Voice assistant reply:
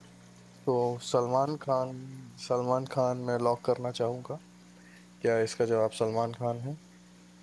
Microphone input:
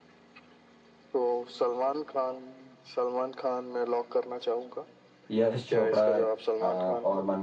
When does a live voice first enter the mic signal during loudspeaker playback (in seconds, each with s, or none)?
5.3 s